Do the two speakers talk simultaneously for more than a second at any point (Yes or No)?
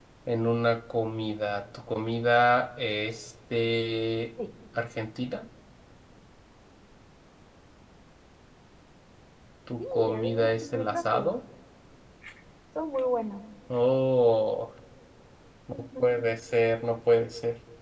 Yes